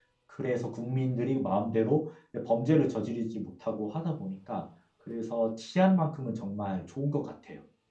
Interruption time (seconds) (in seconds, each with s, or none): none